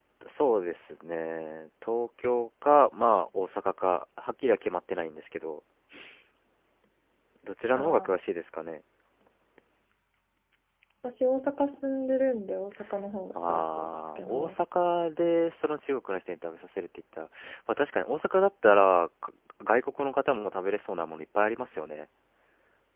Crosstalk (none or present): present